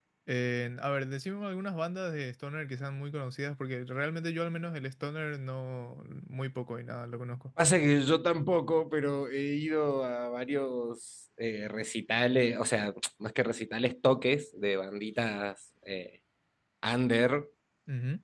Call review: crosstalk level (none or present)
none